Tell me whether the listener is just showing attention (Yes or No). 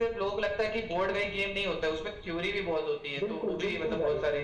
No